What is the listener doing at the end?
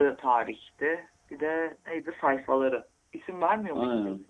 taking over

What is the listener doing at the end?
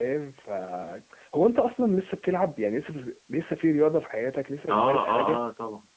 taking over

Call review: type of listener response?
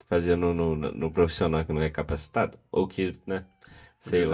taking over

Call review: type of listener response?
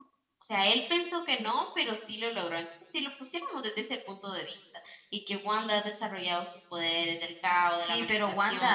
taking over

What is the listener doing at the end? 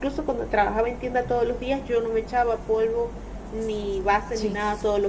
listening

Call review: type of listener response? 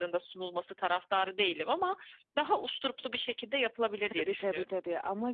taking over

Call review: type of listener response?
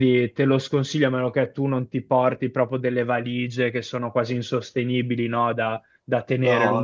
listening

